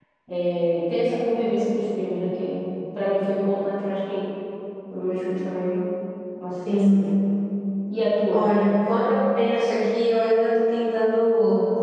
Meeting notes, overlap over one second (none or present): none